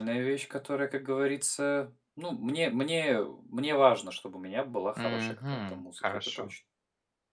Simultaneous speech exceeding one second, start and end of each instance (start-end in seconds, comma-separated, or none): 5.0-6.5